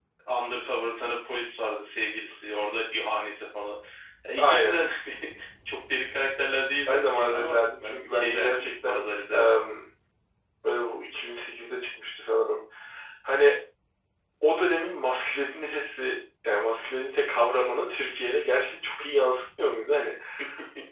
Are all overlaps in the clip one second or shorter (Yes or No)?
No